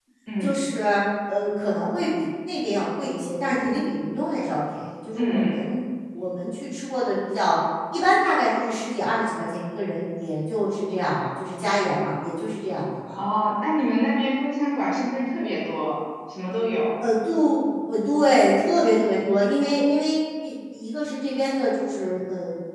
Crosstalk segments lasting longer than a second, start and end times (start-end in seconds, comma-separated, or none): none